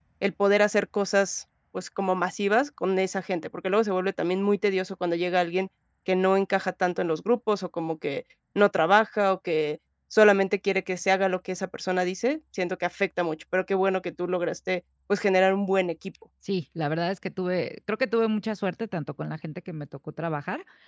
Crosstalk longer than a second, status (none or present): none